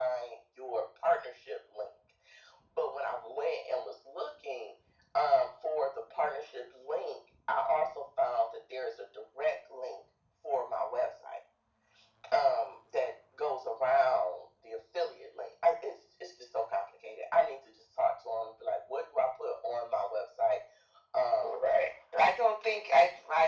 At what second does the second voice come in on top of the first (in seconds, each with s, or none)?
none